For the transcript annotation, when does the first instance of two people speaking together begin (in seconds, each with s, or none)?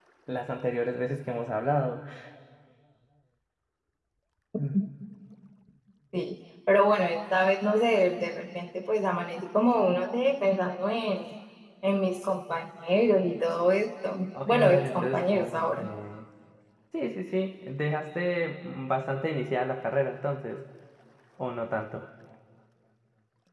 14.3 s